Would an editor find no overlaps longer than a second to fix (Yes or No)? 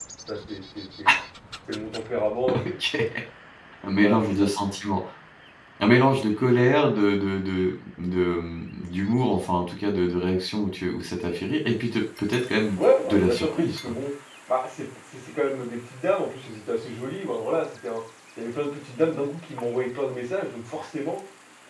No